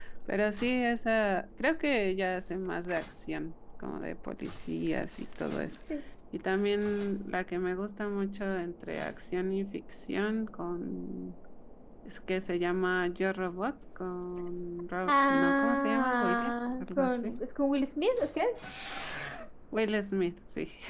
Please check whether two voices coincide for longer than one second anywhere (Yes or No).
Yes